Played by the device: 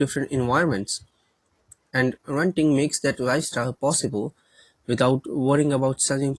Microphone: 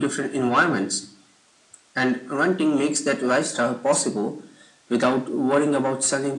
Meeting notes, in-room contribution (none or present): none